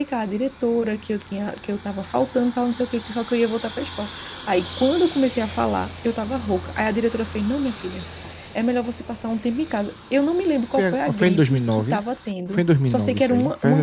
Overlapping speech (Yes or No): Yes